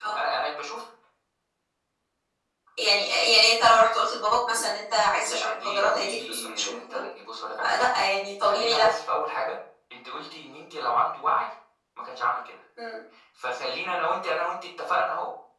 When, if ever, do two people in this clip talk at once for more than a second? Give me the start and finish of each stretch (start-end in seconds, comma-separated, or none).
5.2-7.0